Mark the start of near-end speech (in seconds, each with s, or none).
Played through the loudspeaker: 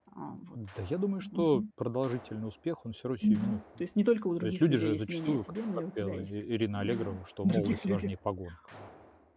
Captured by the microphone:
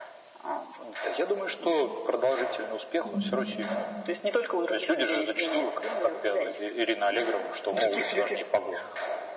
3.0 s